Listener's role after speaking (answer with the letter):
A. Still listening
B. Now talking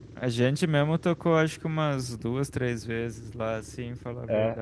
B